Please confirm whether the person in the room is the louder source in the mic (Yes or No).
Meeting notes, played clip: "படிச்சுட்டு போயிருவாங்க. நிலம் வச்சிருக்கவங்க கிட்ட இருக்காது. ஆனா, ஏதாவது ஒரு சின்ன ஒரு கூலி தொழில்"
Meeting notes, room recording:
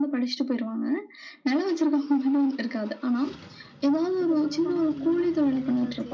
No